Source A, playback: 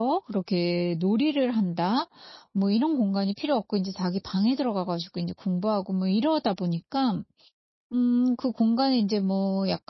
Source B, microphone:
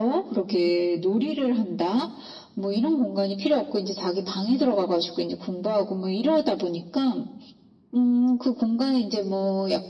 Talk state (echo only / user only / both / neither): echo only